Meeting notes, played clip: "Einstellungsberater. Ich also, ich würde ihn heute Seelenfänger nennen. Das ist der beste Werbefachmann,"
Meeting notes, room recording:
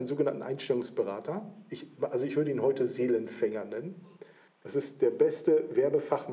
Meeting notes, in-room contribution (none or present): none